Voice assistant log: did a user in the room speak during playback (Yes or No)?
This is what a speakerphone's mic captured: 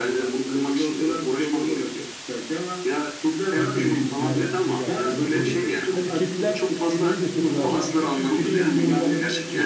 Yes